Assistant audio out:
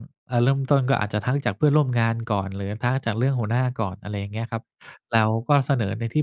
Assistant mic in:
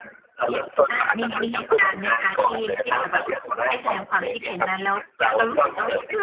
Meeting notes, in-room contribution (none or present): present